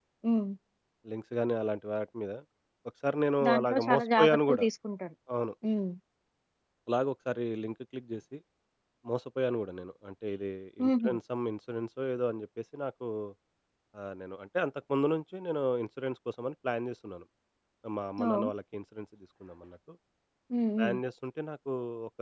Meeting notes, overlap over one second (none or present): present